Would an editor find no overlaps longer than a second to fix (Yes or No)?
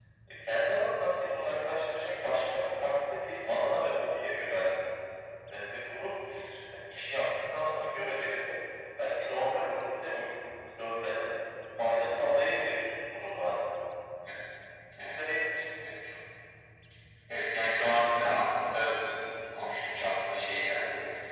Yes